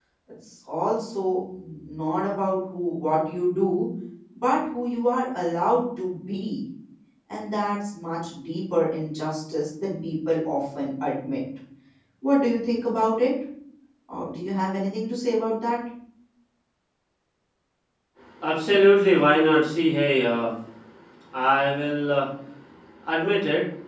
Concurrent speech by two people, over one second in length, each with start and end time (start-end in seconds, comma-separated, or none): none